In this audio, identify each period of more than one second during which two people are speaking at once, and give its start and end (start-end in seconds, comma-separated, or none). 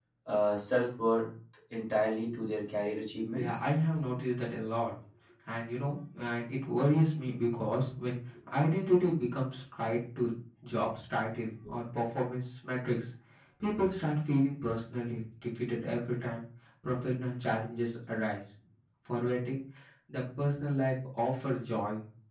none